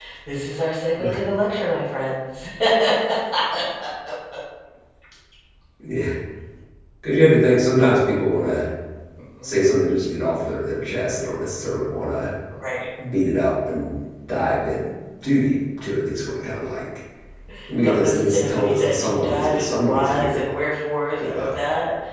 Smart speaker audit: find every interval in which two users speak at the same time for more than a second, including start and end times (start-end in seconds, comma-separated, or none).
17.8-20.4